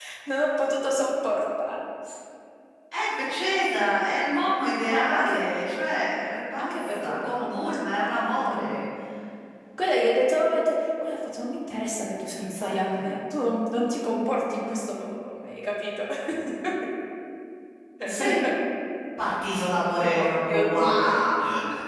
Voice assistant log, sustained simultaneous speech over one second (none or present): present